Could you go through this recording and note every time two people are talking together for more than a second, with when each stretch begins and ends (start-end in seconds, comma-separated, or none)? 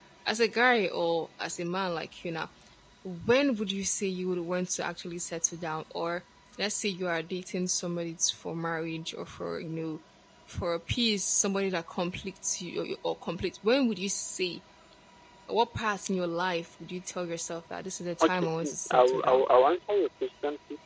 18.2-19.4